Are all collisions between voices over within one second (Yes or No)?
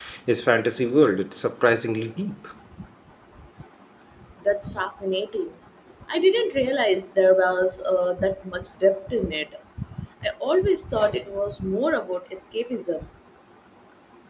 Yes